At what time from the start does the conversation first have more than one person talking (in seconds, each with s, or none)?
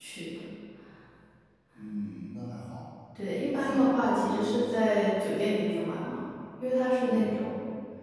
3.6 s